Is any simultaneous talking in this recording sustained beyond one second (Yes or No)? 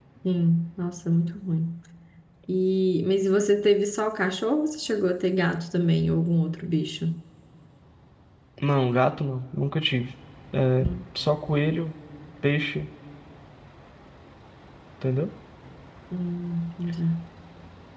No